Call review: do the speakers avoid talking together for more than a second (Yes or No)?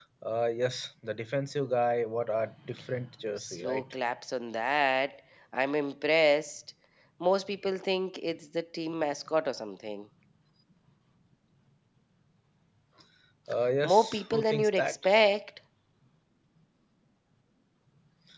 No